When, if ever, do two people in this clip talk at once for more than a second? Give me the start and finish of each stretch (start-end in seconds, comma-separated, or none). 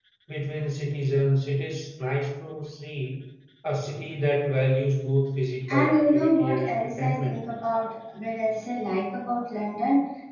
5.7-7.4